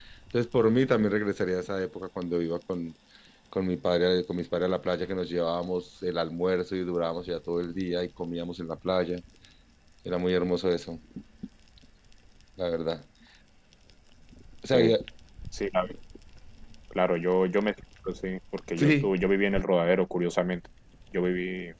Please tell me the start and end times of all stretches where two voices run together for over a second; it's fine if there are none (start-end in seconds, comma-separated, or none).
none